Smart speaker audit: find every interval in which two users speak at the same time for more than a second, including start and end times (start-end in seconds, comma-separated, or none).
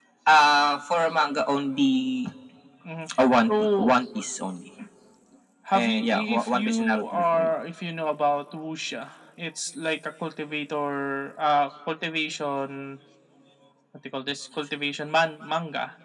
5.7-7.5